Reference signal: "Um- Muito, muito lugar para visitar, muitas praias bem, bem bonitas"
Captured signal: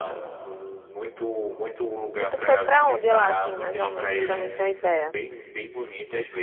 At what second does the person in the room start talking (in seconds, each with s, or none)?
2.1 s